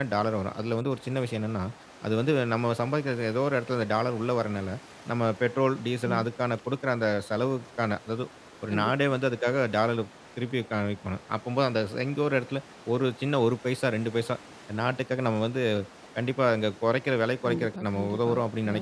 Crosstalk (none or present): present